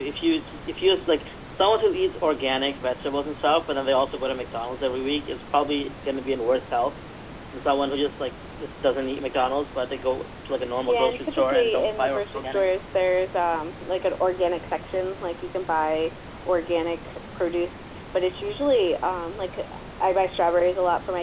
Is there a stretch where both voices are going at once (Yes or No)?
Yes